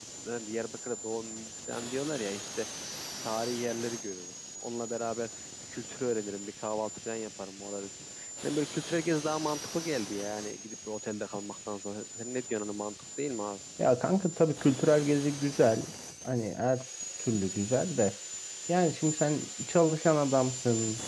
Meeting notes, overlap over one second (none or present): none